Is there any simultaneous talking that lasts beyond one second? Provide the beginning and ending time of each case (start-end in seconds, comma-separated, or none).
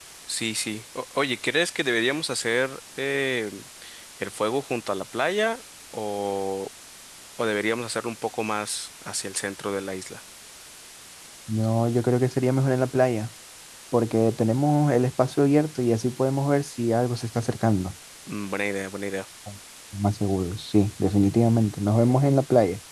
none